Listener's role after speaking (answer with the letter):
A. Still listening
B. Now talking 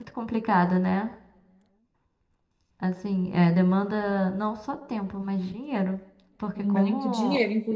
B